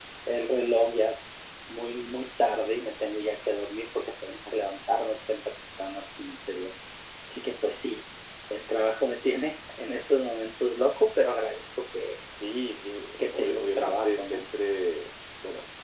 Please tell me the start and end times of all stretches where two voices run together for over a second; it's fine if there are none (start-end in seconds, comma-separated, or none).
13.2-14.4